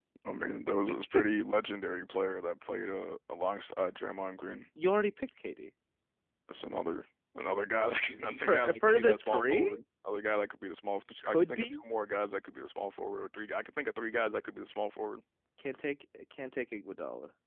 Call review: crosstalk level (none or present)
present